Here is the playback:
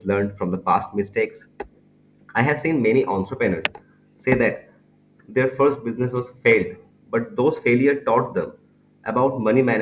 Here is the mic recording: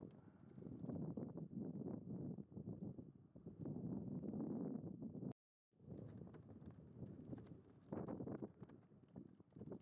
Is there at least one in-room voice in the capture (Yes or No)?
No